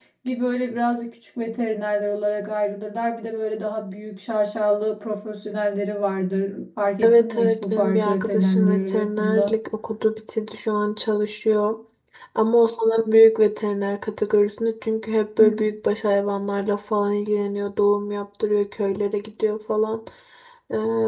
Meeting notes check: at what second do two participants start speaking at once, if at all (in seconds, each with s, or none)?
7.0 s